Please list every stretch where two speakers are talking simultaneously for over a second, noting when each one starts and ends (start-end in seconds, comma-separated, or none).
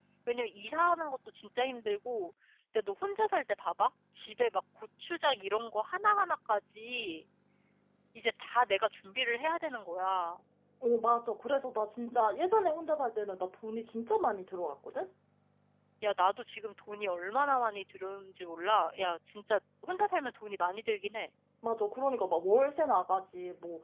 none